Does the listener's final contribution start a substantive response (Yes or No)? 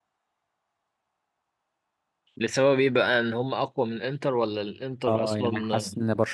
Yes